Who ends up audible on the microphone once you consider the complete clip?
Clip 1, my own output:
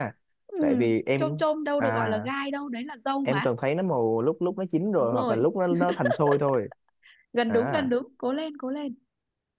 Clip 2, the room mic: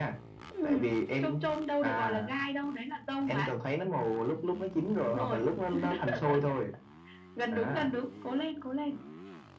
echo only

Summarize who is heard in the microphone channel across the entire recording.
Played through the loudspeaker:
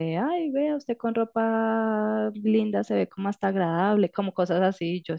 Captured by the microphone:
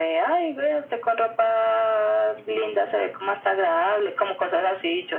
echo only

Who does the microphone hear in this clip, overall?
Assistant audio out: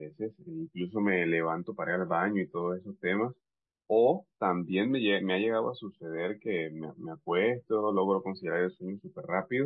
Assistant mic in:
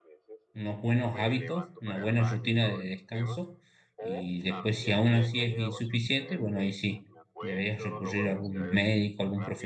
both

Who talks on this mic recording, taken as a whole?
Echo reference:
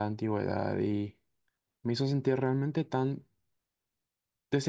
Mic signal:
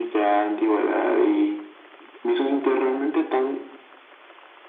echo only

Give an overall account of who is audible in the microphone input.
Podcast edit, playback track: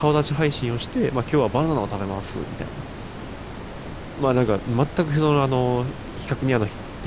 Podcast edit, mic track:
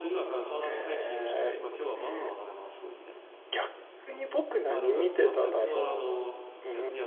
both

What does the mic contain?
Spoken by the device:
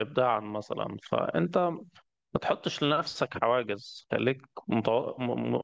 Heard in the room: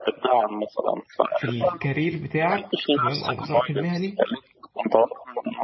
both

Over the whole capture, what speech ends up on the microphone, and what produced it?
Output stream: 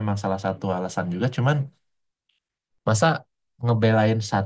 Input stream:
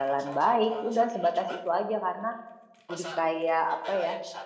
both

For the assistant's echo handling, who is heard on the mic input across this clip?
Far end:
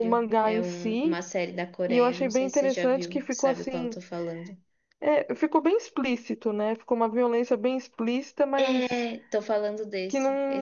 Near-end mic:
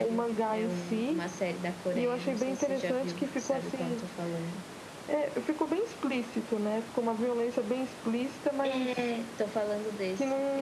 echo only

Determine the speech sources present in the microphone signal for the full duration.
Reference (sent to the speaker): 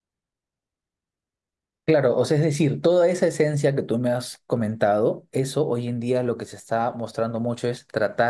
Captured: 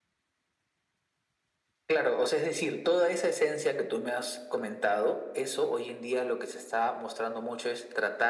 echo only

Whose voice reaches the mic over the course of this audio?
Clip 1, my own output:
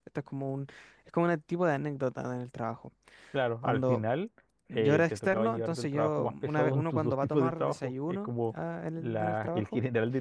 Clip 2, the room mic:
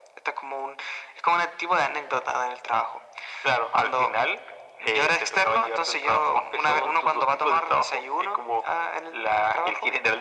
echo only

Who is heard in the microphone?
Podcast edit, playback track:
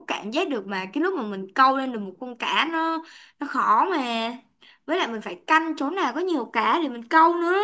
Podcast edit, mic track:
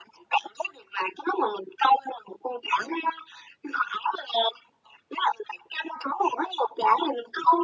echo only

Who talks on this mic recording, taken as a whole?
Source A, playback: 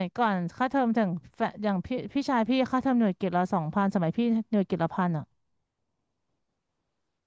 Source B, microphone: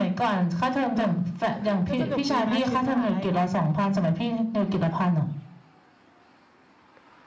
both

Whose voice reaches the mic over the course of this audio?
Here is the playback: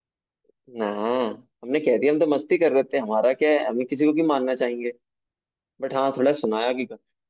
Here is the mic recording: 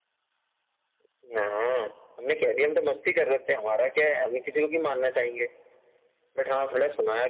echo only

